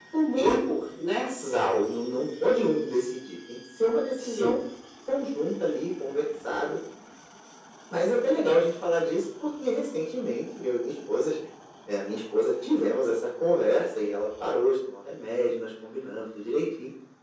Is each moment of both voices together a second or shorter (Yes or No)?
Yes